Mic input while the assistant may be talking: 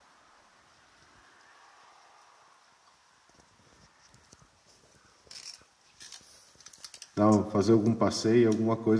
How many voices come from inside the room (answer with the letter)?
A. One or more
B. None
A